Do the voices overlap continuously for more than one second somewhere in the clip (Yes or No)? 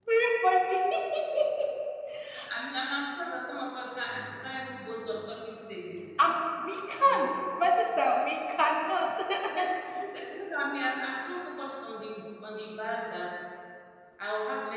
No